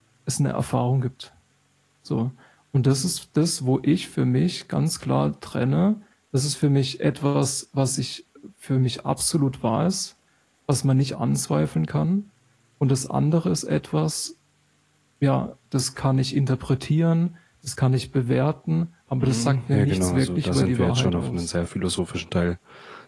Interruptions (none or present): present